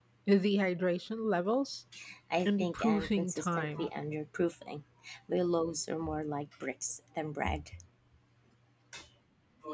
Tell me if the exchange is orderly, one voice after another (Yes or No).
No